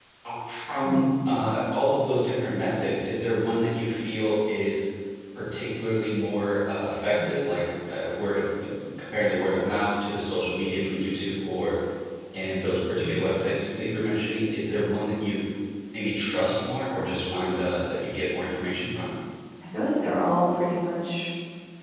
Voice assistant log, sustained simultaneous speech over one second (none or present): none